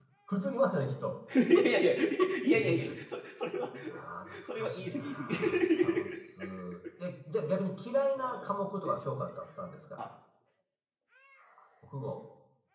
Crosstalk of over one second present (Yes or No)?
Yes